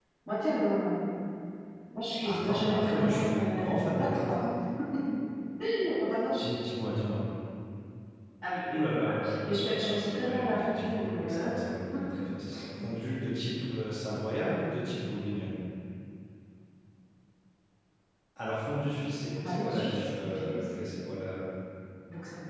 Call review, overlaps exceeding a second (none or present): present